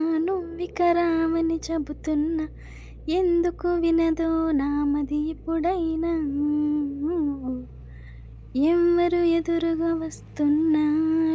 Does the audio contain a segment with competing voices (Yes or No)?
No